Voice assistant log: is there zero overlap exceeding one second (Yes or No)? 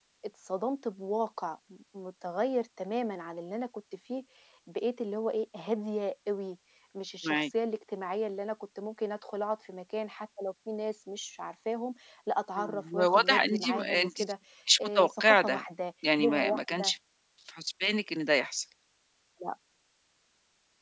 No